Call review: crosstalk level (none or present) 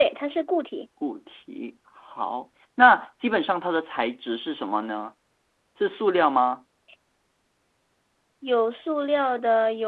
none